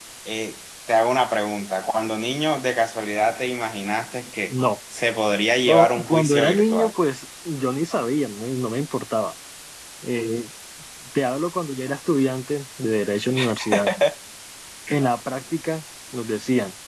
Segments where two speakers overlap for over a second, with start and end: 5.7-6.9

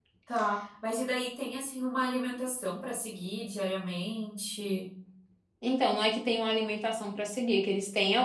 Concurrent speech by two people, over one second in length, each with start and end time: none

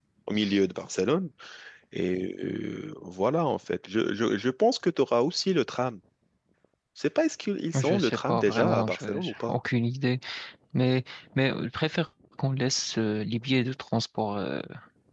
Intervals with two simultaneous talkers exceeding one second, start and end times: 7.7-9.5

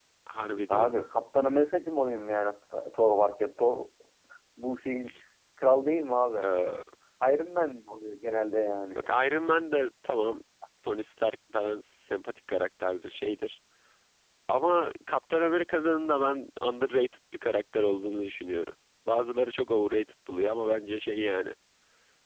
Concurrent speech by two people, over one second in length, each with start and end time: none

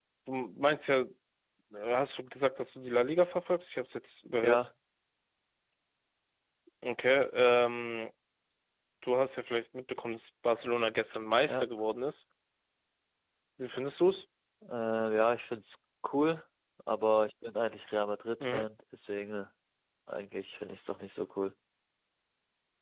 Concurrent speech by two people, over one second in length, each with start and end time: none

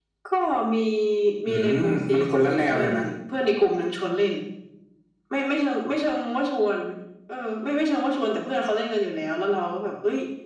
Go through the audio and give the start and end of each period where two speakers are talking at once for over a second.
1.5-2.9

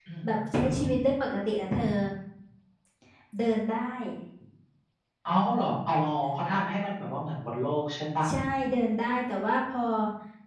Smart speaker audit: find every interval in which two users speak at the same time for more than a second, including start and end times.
none

